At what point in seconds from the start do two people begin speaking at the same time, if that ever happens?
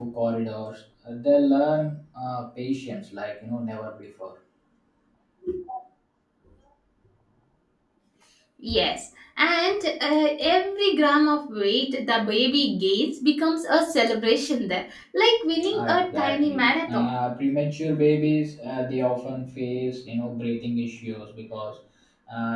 15.6 s

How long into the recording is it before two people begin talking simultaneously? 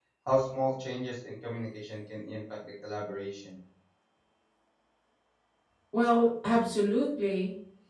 none

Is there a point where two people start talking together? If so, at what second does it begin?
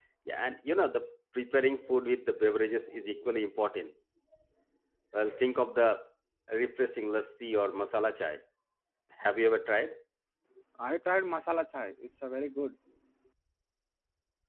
none

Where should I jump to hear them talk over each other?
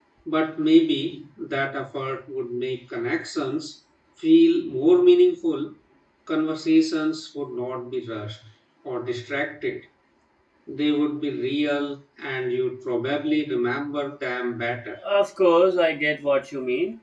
none

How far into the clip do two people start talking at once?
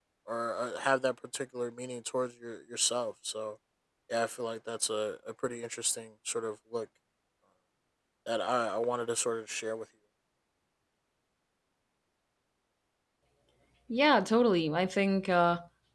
none

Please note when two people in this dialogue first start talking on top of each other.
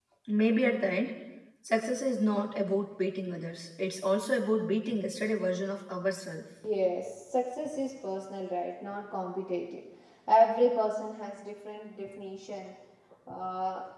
none

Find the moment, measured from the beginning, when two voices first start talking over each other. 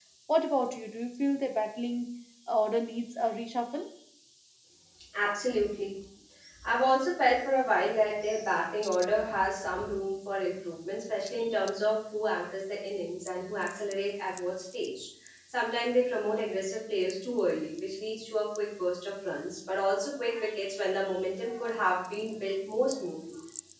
none

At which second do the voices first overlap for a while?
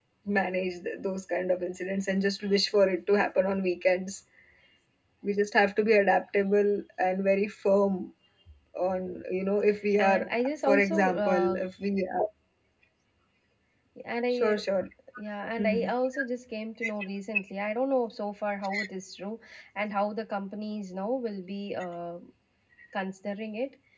9.9 s

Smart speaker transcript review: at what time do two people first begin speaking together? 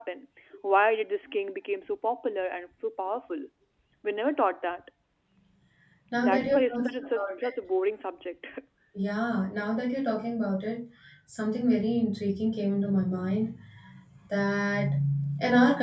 6.2 s

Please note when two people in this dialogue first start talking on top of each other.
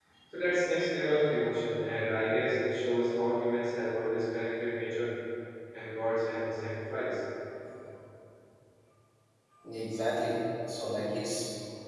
none

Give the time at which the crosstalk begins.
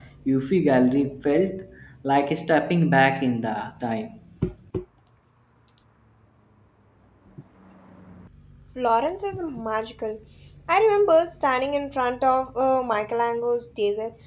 none

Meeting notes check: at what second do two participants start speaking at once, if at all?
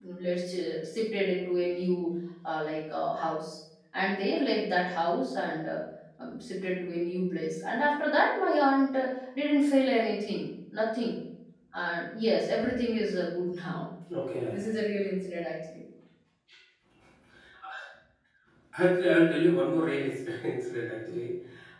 none

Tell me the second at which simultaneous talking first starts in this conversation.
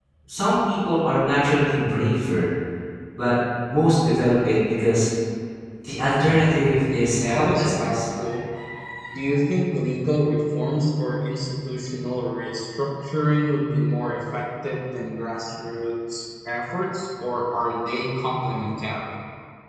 6.8 s

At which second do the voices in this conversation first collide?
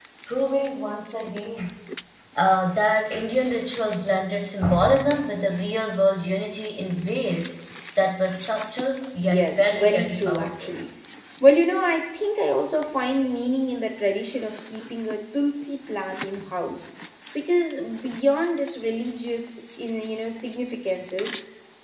9.2 s

